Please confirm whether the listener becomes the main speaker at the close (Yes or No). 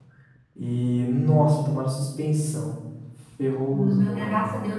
Yes